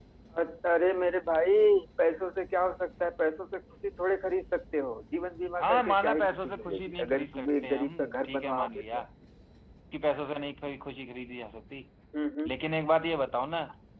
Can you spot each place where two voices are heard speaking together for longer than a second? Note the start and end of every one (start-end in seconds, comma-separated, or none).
5.6-9.0